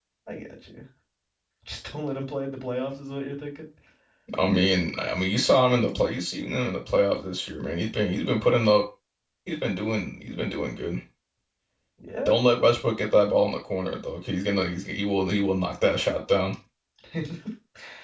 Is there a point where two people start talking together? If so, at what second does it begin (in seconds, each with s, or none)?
none